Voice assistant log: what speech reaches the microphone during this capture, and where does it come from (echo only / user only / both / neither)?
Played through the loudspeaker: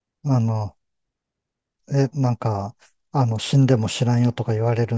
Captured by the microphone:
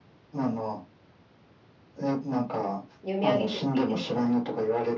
both